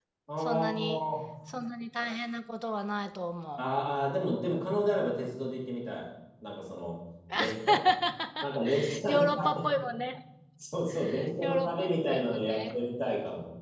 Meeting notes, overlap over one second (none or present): present